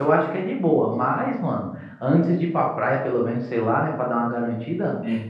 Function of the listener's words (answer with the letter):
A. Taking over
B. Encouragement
B